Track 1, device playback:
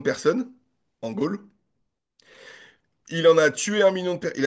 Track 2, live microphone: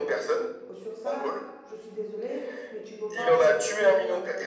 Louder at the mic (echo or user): echo